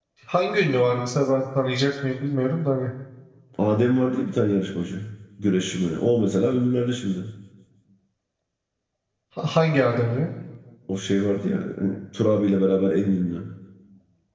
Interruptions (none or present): none